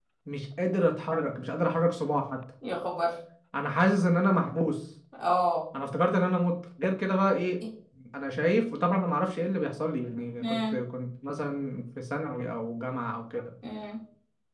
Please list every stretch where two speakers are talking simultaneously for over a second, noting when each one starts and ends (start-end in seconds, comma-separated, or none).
none